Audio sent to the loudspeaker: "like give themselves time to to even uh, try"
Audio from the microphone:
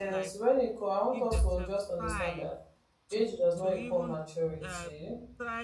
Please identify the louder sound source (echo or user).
user